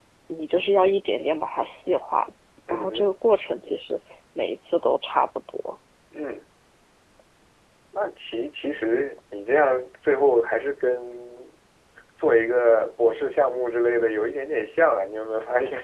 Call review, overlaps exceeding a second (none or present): none